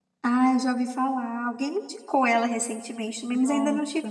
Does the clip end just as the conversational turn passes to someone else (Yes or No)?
Yes